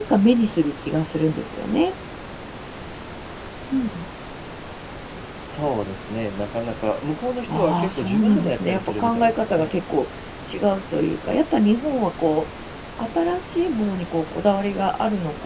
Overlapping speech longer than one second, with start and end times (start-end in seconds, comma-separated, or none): 7.5-9.7